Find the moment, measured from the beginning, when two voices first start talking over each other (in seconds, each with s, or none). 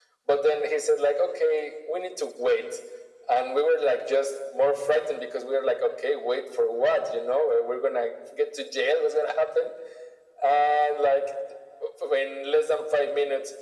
none